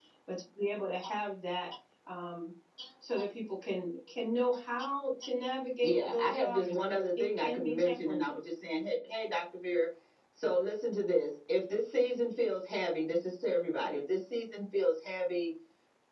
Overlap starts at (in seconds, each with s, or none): 5.8 s